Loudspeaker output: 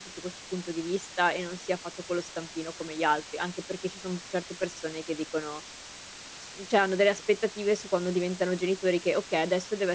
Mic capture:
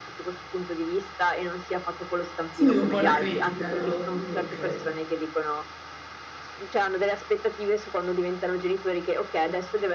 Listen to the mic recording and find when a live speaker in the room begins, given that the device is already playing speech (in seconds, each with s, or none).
2.5 s